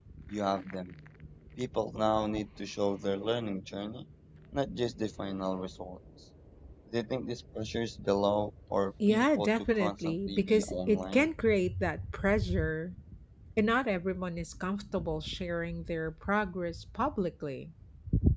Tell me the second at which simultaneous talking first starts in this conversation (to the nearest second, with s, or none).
9 s